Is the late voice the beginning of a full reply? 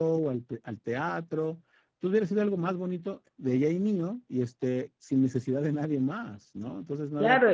Yes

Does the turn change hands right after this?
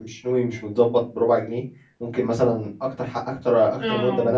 No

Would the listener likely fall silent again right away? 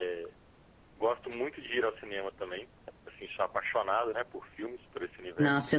No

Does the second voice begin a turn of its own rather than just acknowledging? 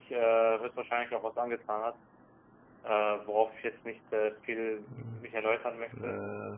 No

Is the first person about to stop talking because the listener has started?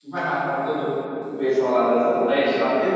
Yes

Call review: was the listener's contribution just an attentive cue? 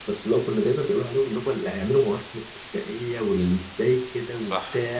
No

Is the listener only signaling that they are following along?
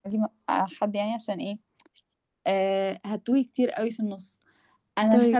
Yes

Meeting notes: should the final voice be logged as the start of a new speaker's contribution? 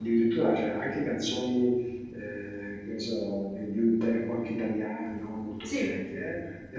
No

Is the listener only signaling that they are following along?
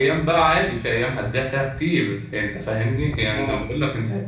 Yes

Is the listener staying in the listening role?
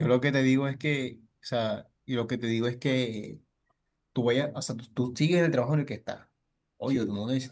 Yes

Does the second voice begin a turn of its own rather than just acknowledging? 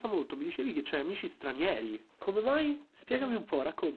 Yes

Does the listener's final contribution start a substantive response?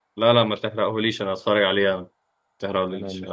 Yes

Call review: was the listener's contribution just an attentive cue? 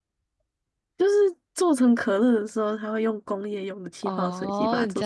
No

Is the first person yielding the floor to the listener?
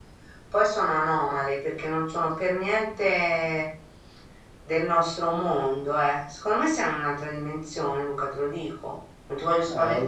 Yes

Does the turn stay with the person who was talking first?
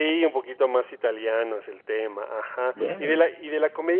Yes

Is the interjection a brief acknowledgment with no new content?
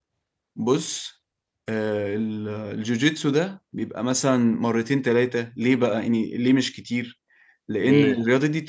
Yes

